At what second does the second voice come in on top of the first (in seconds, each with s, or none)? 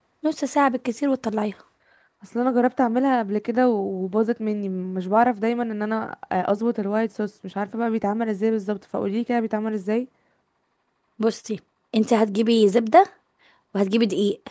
none